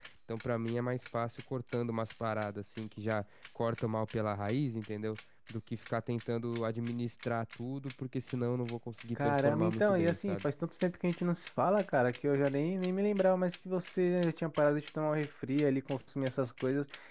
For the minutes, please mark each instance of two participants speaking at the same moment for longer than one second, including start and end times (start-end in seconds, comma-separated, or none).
9.2-10.5